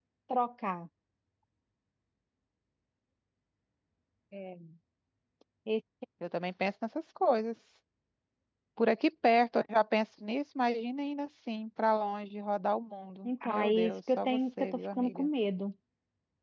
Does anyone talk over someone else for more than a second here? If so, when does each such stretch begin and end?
13.2-15.3

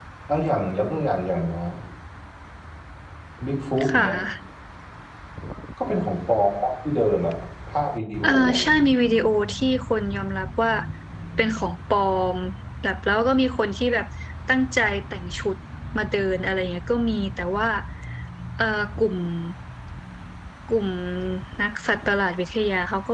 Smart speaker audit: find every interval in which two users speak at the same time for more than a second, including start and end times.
none

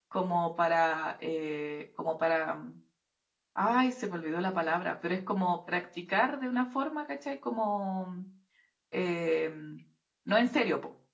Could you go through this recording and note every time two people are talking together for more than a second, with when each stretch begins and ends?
none

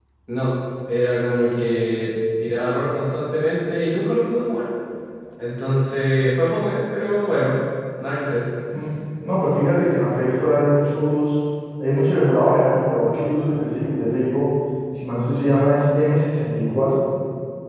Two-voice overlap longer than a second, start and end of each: none

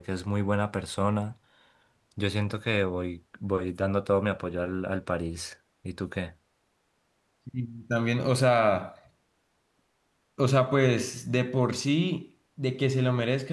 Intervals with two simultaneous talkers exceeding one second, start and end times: none

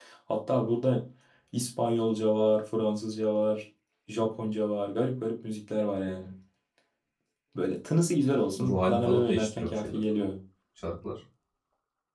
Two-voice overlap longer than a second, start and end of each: 8.6-10.0

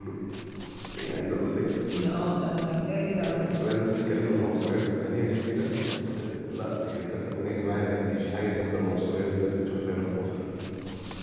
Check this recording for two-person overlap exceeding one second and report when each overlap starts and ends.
none

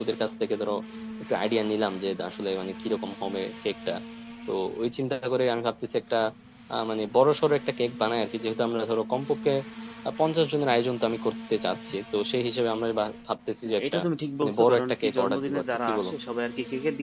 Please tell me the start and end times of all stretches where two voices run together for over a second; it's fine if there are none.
14.4-16.1

